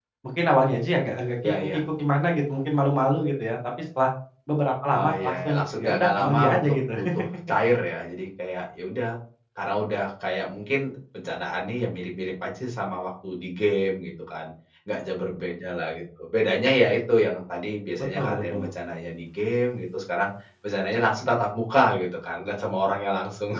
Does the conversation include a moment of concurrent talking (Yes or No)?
Yes